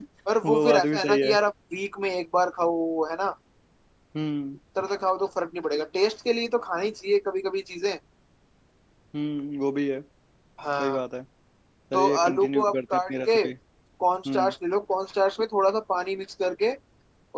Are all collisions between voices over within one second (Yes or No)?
No